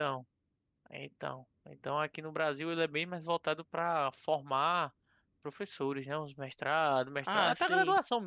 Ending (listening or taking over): listening